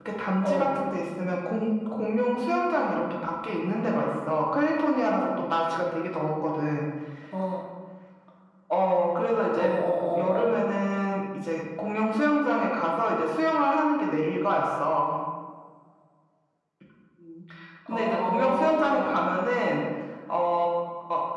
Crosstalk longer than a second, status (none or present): present